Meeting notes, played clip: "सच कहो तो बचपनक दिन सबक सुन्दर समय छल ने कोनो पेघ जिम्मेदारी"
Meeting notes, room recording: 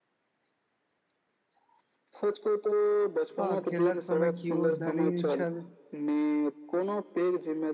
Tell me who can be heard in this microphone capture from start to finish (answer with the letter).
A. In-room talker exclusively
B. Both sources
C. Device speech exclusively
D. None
B